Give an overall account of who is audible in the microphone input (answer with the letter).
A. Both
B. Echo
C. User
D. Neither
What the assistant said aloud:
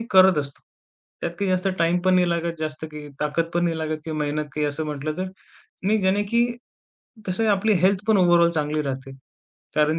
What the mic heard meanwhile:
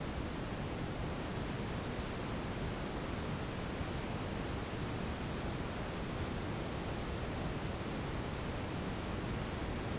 D